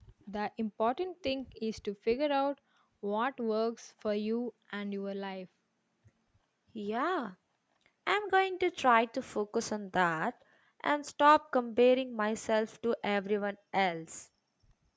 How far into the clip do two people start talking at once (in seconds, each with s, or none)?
none